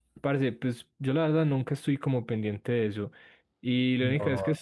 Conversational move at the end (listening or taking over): listening